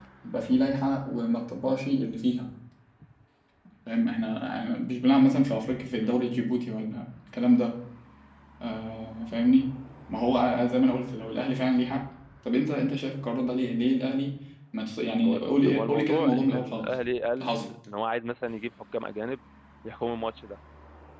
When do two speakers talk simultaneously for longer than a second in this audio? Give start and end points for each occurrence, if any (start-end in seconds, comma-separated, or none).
15.2-16.9